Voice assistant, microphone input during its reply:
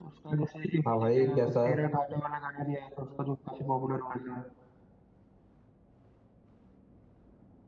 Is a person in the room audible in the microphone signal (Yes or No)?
Yes